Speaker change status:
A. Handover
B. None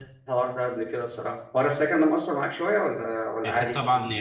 A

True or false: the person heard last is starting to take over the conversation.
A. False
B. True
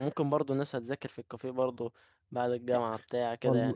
B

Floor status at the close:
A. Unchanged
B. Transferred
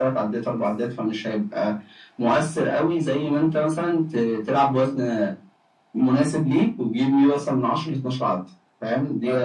B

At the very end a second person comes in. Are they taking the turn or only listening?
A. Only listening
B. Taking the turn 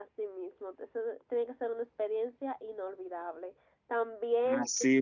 A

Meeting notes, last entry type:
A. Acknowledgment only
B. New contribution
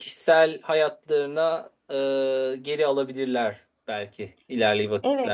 B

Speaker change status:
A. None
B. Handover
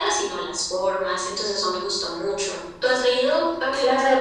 B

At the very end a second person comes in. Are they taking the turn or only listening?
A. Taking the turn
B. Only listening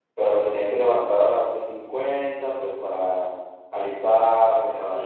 B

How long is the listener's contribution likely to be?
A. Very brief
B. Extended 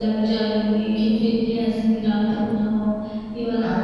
B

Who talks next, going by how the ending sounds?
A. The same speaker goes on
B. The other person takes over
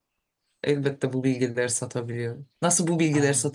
A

